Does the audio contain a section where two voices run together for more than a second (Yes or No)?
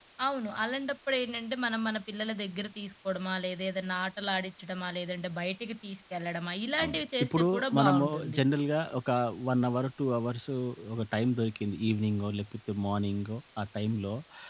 Yes